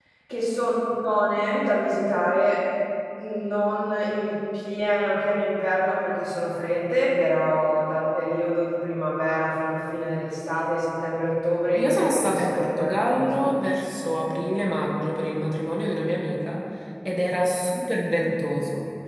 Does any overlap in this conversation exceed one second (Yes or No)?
Yes